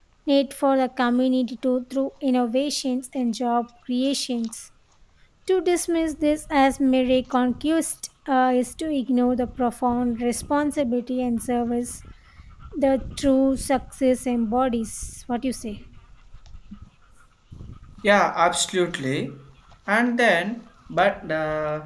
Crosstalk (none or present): none